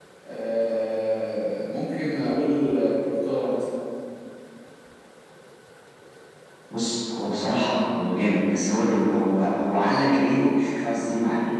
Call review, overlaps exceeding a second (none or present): none